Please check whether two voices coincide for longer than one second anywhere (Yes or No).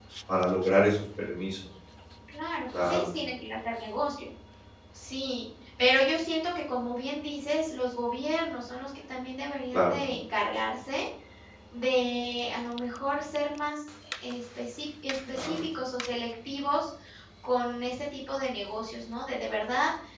No